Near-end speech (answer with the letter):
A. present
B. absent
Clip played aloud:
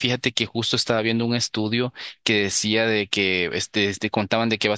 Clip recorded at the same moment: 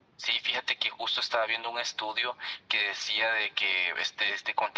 B